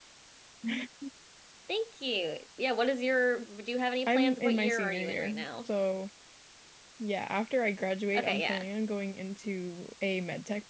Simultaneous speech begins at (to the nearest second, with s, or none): 4 s